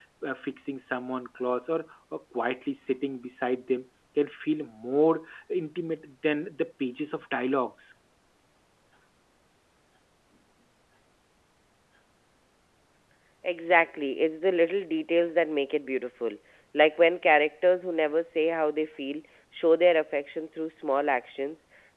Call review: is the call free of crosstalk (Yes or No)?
Yes